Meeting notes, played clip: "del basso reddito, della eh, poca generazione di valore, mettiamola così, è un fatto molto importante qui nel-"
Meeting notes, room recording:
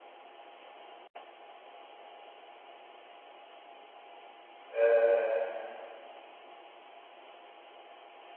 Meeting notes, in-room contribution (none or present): present